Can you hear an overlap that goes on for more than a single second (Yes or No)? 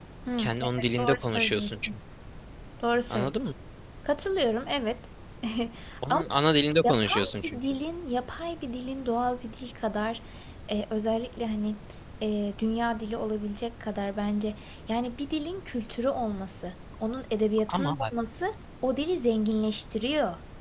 Yes